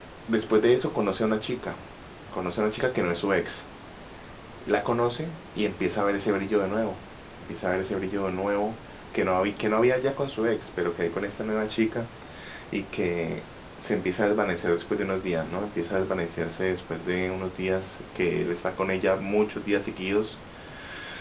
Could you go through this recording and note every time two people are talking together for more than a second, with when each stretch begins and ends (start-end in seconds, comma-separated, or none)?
none